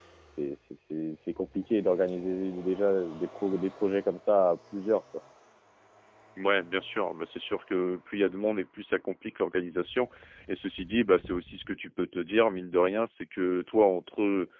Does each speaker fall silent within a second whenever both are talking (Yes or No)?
Yes